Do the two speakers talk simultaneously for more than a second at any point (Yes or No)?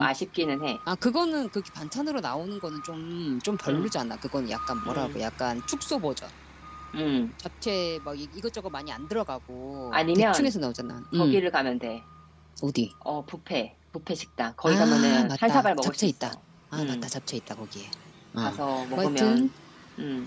Yes